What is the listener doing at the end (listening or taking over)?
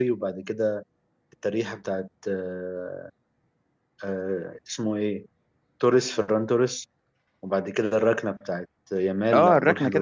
taking over